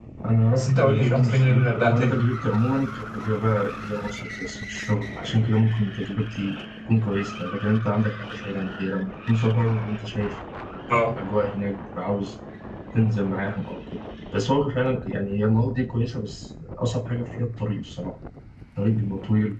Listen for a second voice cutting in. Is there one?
Yes, from 0.5 s

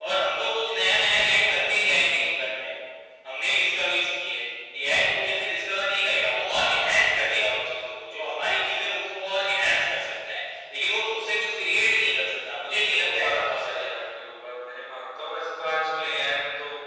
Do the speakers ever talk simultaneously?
Yes, from 12.2 s

